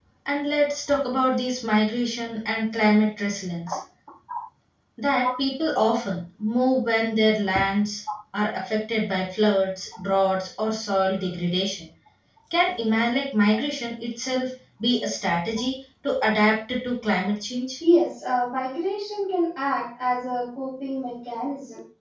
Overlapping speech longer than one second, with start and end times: none

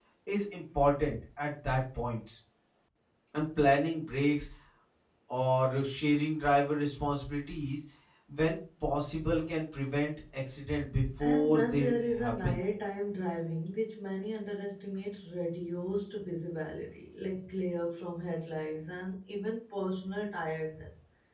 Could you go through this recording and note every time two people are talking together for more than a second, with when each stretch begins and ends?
11.2-12.6

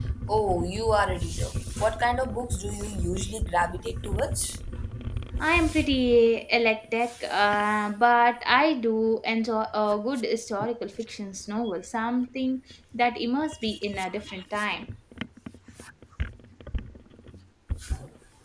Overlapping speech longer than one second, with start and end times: none

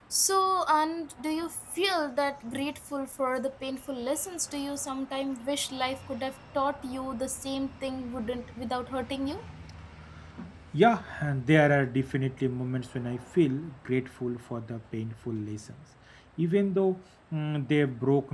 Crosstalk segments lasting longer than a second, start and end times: none

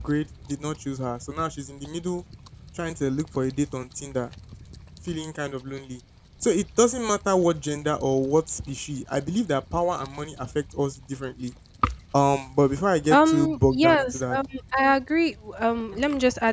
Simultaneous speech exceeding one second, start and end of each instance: 13.1-14.4

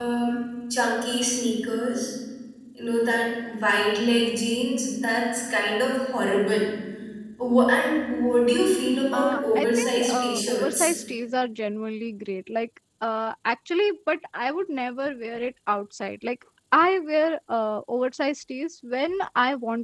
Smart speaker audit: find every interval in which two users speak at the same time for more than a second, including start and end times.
9.1-10.9

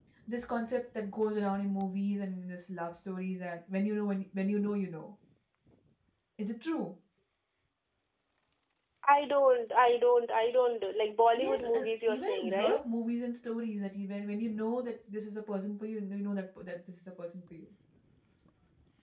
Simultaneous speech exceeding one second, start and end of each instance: 11.4-12.8

